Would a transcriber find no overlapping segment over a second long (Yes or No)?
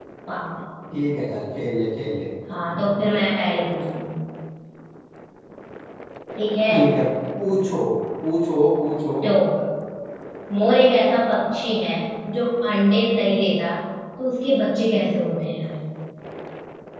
Yes